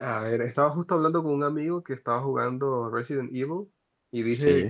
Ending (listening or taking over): listening